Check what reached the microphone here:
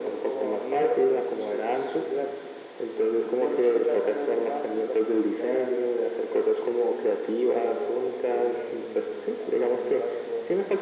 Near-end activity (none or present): none